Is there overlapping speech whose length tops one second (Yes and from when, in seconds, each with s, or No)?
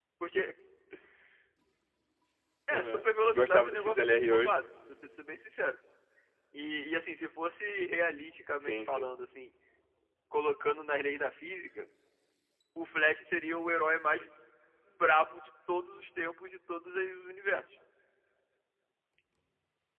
Yes, from 2.7 s